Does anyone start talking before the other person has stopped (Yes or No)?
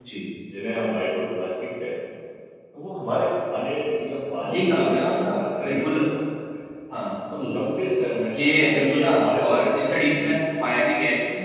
Yes